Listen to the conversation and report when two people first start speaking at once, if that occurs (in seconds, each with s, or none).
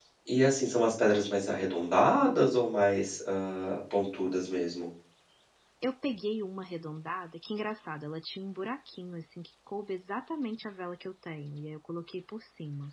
none